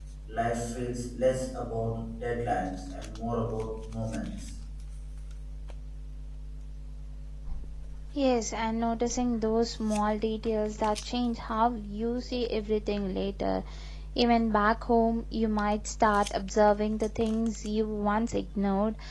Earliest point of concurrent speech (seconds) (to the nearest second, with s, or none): none